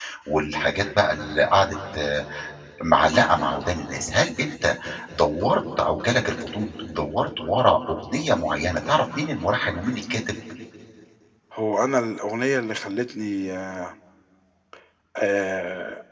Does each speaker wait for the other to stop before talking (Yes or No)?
Yes